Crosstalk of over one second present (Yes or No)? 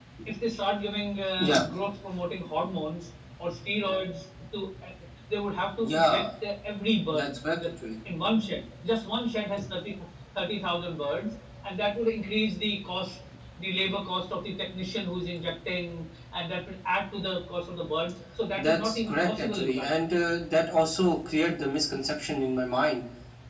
Yes